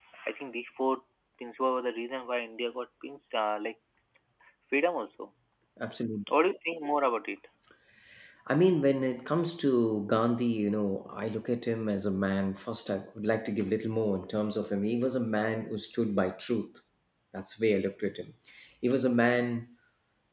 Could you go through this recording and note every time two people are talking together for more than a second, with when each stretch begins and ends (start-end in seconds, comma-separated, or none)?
none